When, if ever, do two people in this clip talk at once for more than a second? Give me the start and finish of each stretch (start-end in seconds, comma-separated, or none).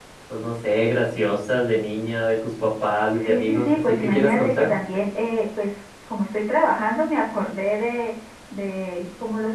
3.2-4.7